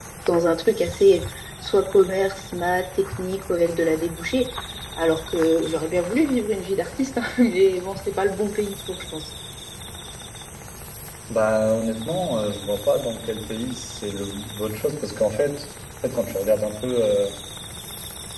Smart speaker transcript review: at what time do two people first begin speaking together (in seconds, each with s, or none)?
none